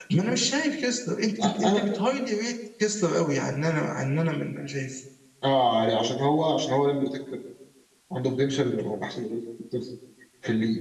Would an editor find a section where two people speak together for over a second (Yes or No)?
No